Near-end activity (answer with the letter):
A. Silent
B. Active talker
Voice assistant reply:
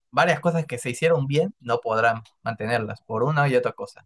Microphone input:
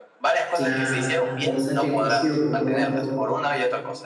B